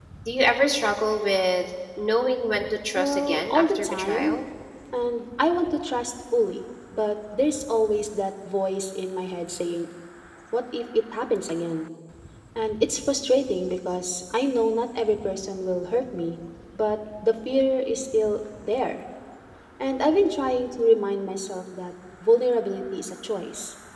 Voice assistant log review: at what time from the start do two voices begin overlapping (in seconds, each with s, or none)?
3.0 s